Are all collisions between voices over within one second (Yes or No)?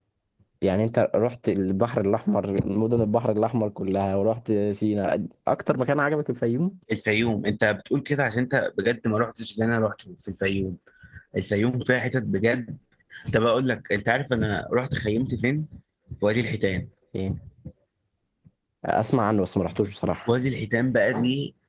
Yes